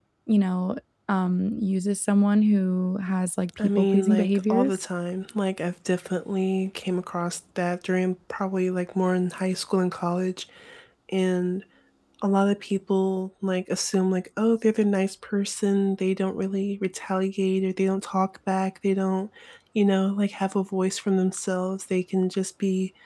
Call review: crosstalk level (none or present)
present